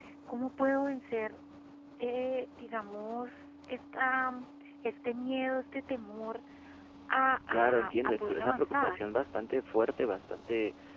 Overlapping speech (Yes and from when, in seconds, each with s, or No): Yes, from 7.5 s